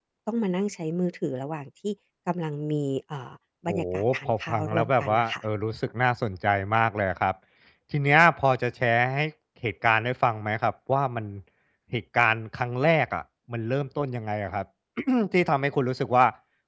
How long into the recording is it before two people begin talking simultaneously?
3.7 s

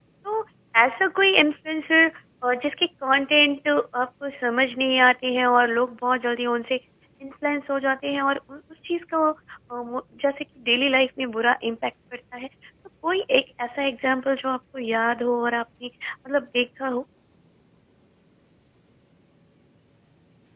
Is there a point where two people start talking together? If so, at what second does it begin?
none

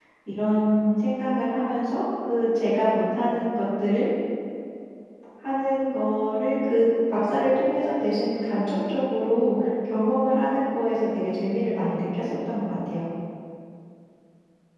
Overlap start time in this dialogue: none

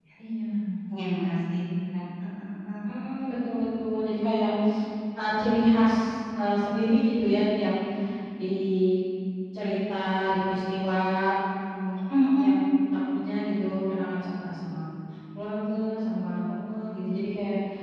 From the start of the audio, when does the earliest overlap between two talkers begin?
none

